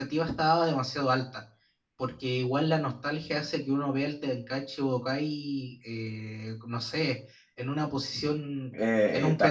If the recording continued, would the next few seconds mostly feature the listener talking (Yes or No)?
Yes